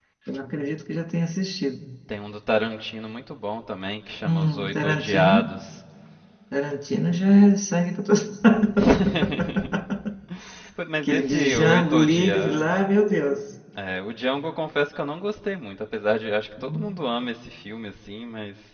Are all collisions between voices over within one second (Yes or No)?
No